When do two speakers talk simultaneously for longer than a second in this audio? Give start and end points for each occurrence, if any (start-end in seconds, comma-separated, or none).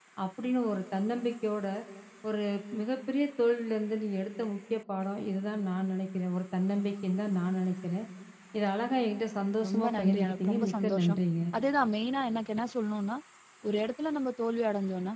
9.7-11.2